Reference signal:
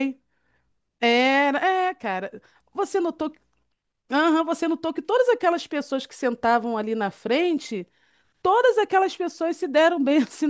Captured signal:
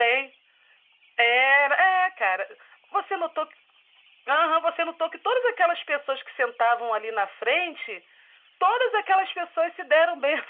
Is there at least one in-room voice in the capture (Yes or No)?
No